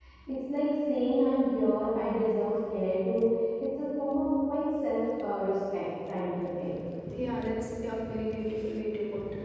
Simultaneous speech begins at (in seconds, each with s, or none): none